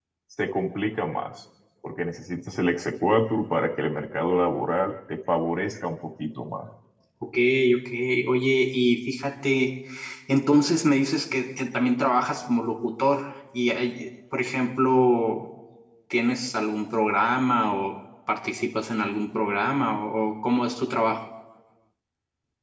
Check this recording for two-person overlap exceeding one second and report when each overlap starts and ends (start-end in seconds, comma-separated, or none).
none